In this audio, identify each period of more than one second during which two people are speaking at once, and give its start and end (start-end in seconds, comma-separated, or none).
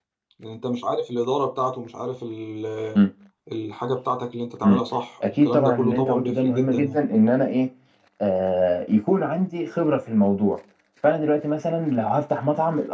5.4-7.0